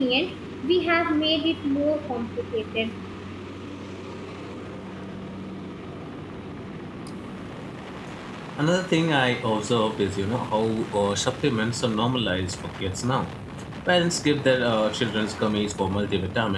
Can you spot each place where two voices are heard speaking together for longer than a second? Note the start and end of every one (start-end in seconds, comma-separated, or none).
none